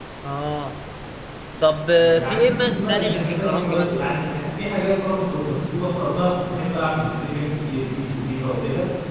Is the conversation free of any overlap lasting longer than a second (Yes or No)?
No